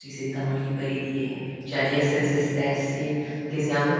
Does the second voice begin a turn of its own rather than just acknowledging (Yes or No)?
No